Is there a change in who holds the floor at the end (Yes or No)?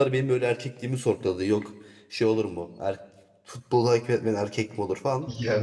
No